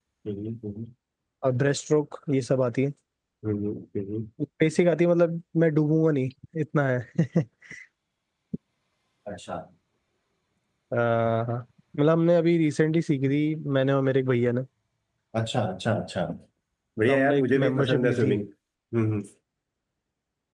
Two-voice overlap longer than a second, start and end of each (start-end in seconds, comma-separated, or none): 17.1-18.4